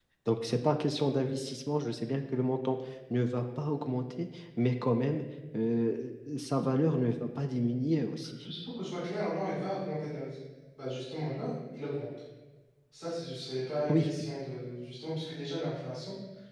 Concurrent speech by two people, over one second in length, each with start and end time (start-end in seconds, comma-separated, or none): none